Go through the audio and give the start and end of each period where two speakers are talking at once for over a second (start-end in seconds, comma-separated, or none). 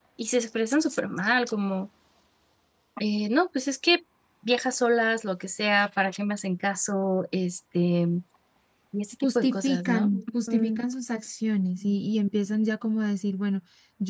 9.2-10.8